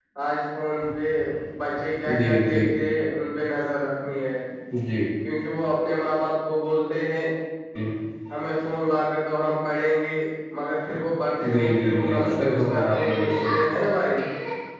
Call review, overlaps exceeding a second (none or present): present